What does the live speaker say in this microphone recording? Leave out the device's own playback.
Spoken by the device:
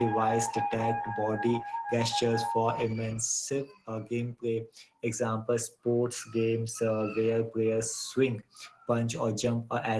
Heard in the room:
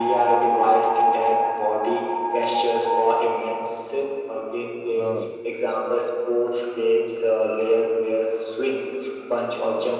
Uh,

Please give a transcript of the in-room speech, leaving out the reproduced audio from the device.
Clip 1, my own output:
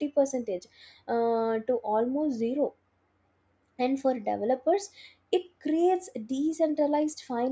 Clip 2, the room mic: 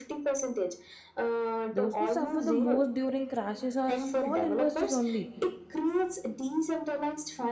those who suffer the most during crashes are small investors only,

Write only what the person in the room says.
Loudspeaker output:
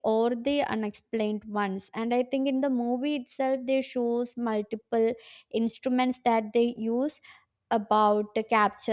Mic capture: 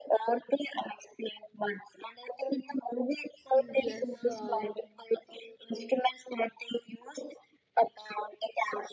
Yes, uh,

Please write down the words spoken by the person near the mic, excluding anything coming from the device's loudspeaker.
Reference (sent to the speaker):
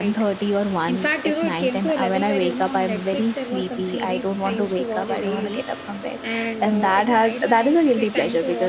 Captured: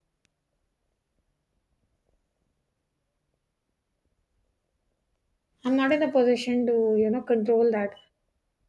I'm not in a position to, you know, control that.

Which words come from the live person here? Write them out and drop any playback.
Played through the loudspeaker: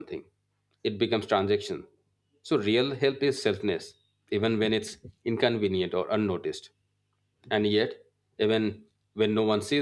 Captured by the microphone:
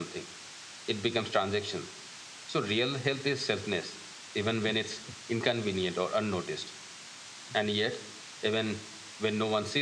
none

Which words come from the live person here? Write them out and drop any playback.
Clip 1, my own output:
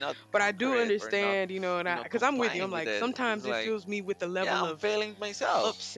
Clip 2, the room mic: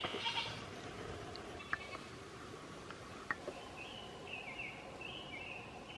none

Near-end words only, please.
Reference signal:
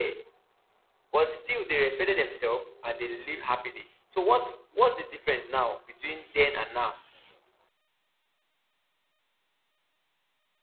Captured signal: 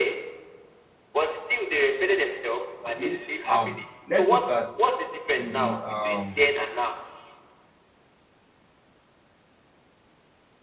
Okay. Um. Let's look at in the um

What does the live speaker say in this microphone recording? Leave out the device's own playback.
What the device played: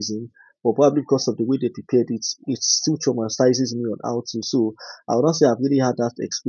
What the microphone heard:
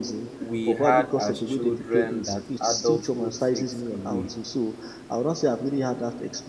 we had as children that adulthood takes away?

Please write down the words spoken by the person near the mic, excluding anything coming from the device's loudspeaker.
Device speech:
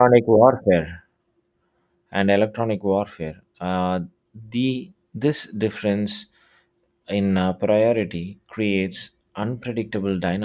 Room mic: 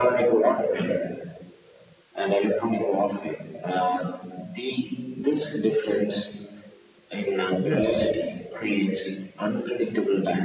Yes.

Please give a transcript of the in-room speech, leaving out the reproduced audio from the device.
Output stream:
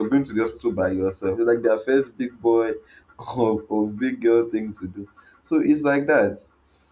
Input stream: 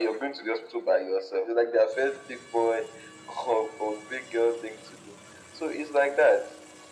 none

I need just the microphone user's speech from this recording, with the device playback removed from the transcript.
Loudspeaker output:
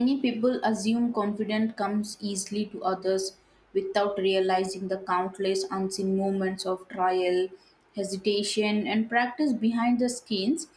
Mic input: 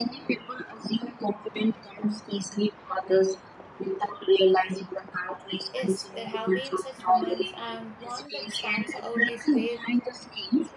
Yes, there have been such moments, and one that stands out is where

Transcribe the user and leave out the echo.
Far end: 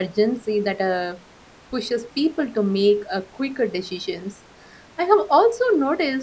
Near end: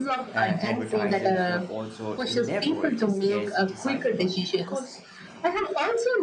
uh, advertisers uh, also leverage scarcity psychology because

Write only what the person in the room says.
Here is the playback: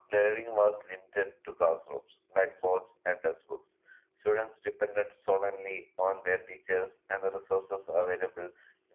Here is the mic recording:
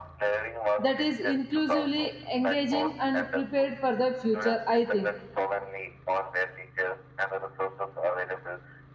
that is inclusively engaging and prepared for the future i think

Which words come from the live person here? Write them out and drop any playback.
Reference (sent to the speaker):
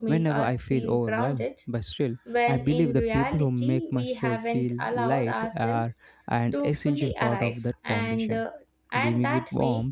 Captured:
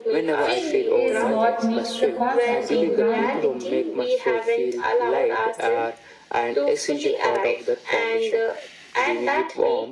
feeling is what makes the concept so grounding

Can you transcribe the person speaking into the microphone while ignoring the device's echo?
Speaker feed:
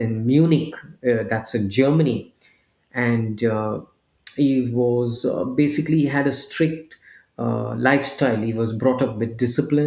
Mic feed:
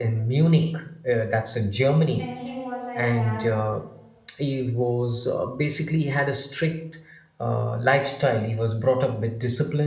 and he was a young,

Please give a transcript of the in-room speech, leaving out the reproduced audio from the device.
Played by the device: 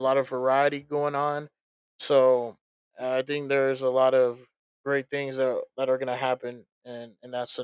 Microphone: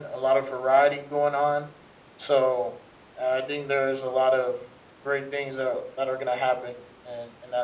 none

